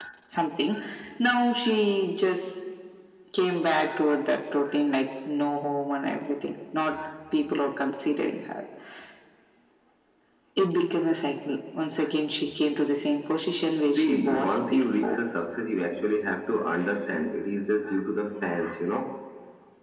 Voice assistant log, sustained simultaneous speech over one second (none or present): present